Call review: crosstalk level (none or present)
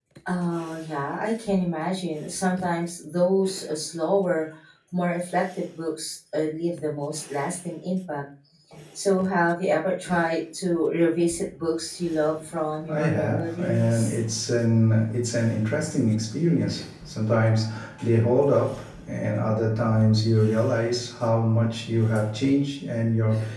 present